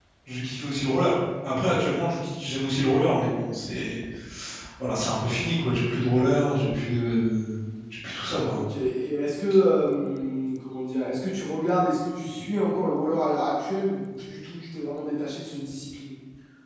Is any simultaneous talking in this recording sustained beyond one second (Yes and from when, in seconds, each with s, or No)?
No